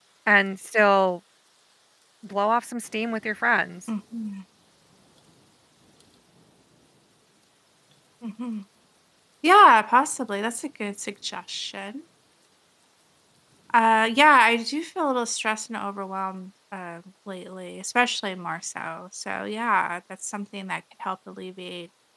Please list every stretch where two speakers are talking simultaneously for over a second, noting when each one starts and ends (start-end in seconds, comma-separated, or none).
none